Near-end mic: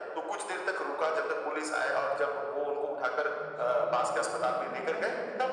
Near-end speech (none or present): present